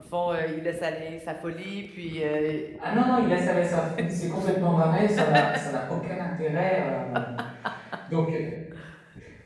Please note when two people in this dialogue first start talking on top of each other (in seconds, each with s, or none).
none